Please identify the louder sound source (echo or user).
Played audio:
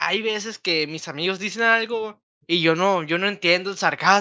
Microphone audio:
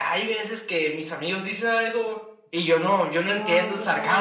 echo